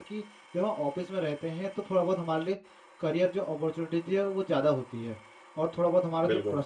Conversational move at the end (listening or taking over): listening